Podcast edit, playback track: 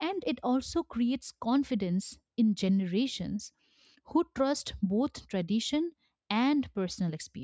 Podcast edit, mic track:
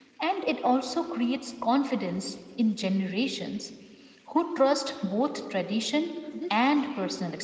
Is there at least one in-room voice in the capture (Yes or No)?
Yes